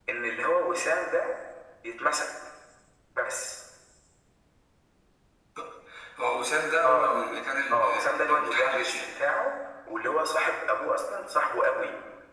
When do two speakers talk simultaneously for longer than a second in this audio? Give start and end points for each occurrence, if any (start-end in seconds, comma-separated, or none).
7.7-9.1